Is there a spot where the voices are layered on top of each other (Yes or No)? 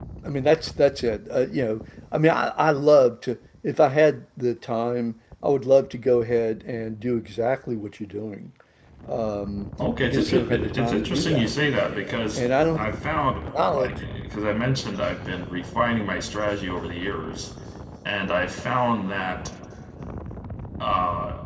Yes